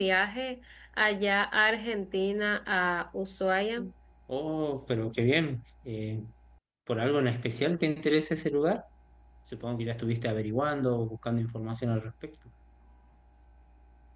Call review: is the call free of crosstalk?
Yes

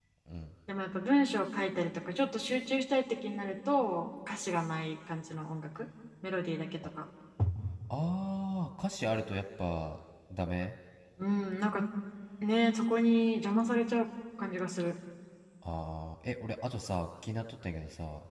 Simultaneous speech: No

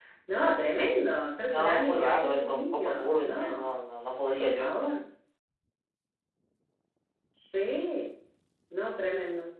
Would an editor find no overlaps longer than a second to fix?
No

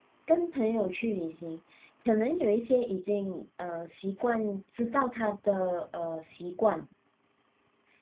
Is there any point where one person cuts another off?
No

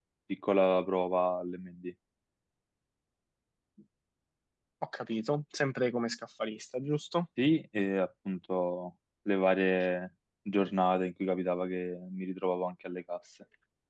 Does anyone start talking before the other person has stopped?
No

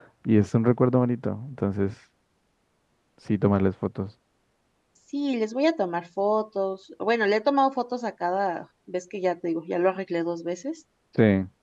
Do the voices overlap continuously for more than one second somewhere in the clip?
No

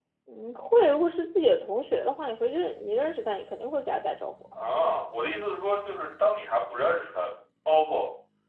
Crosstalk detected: No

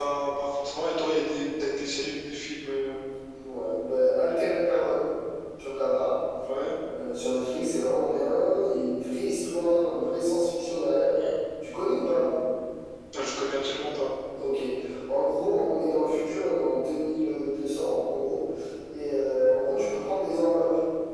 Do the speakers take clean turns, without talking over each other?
Yes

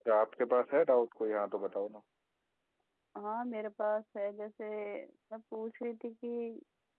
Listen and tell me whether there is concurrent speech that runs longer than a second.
No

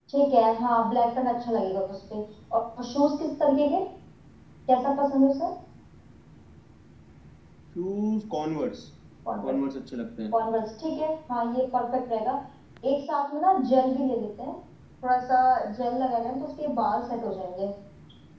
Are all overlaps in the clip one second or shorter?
Yes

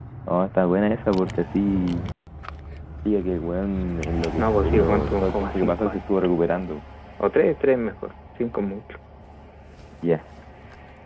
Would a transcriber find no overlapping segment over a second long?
No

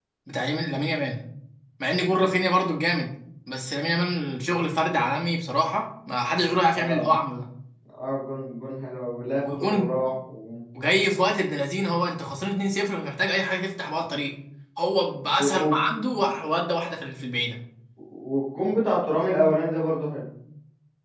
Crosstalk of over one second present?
No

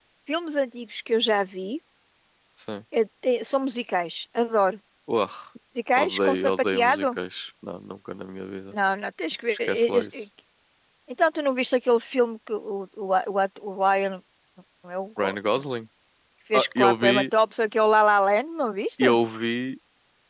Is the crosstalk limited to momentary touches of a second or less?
No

